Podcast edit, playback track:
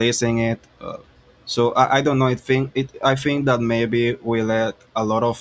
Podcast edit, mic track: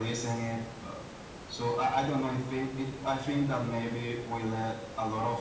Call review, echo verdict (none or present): present